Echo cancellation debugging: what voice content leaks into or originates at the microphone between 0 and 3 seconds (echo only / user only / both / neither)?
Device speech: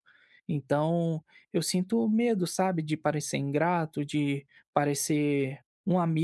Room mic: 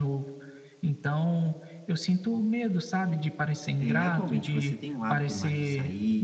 echo only